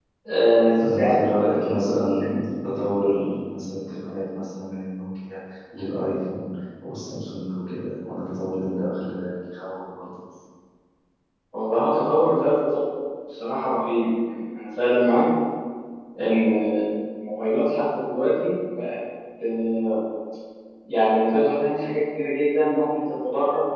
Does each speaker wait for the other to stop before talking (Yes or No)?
No